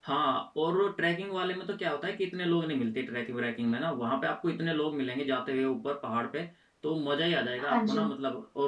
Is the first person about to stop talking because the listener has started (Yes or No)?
No